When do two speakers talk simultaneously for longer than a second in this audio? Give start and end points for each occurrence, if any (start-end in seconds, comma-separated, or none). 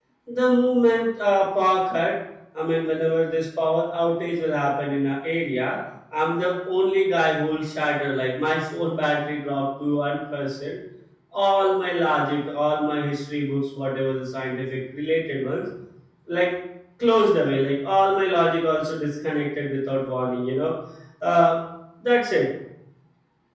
none